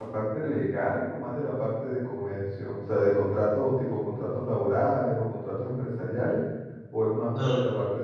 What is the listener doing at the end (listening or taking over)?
listening